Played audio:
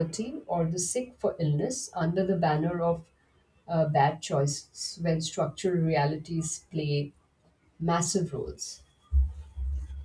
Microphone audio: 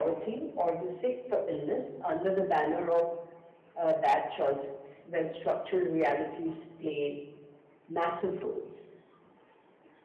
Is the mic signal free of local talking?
Yes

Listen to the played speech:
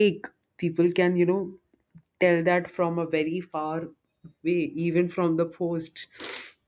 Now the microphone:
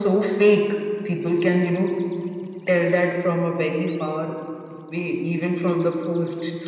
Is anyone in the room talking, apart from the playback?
No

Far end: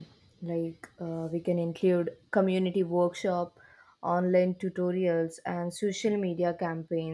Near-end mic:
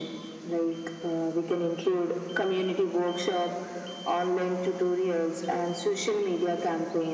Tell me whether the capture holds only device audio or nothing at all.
Yes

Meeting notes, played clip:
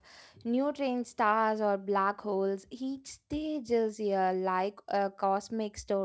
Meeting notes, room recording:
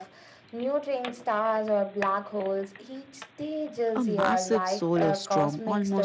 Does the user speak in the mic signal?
Yes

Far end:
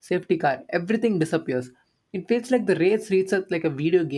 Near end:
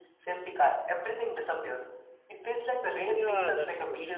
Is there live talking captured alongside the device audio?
Yes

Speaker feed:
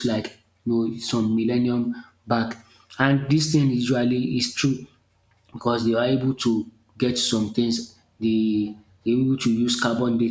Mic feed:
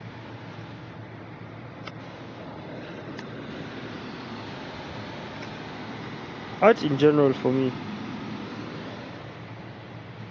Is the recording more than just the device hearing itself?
Yes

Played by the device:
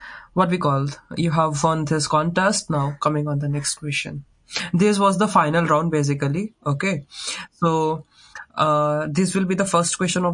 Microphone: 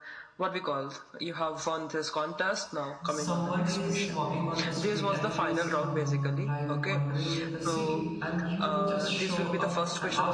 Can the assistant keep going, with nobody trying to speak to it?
No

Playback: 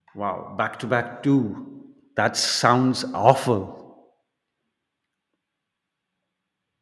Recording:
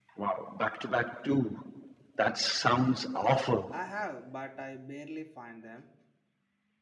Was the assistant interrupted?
Yes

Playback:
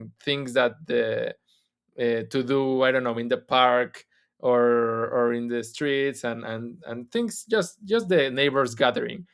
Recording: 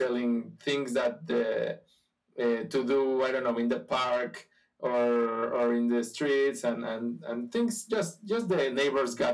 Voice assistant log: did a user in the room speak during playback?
No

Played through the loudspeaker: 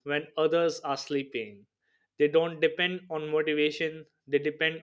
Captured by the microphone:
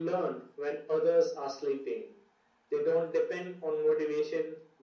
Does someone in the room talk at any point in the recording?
No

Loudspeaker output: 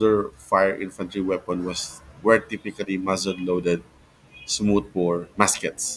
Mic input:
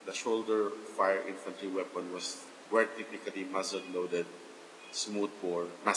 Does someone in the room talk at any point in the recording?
No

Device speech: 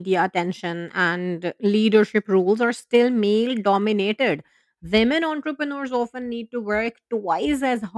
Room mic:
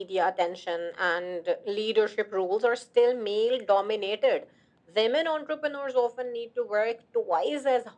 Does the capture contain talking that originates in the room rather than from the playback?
No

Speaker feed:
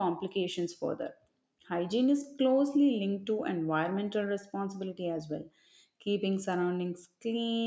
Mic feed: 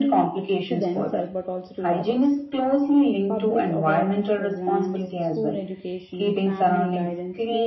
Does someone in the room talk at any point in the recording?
Yes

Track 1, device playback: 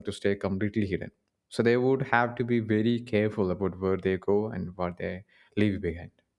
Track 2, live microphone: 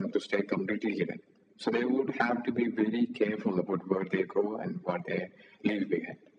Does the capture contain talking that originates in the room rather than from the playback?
No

